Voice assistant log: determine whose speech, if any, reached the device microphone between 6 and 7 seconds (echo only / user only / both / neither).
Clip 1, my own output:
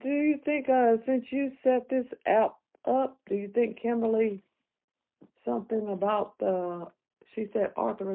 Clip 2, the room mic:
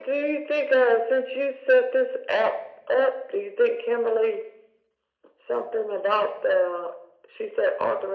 echo only